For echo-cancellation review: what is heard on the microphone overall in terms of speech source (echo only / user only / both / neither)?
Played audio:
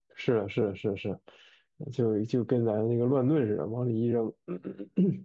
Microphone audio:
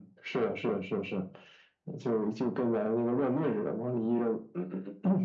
echo only